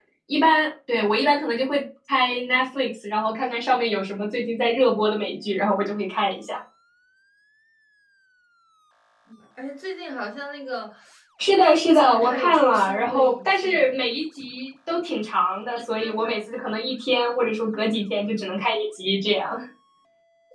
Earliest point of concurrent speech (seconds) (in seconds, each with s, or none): 11.6 s